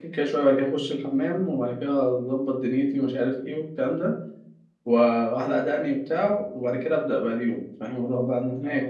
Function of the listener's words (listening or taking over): taking over